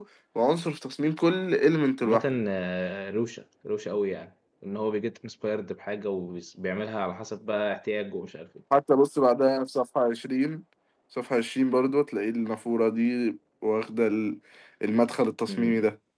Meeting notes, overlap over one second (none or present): none